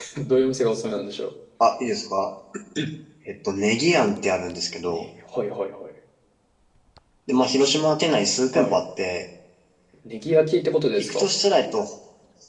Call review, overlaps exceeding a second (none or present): none